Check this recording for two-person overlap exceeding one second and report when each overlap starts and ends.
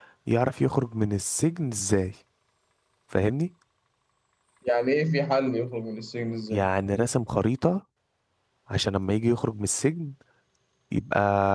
none

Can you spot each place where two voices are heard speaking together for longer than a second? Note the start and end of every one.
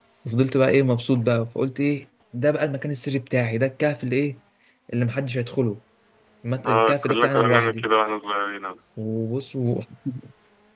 6.7-7.9

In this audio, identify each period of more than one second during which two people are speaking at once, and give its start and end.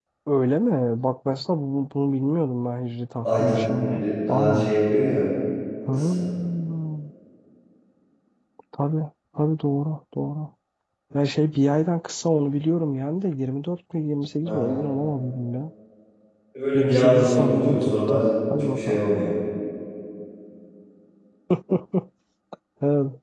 3.2-4.7, 16.7-18.2

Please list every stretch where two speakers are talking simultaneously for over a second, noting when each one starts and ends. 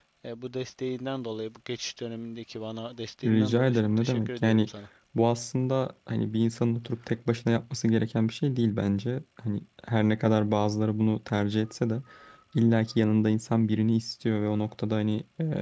3.2-4.7

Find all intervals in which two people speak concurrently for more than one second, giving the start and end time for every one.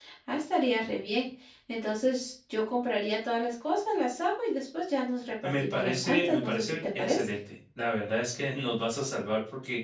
5.4-7.3

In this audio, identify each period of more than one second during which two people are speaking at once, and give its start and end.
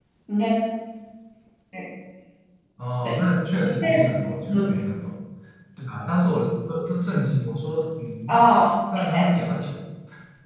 none

